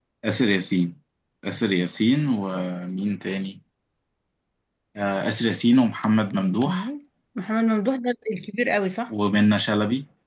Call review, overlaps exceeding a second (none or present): none